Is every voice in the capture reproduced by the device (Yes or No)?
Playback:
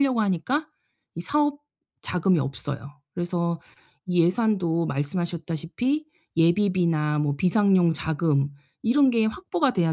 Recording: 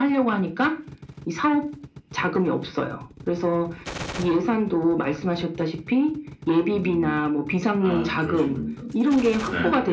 No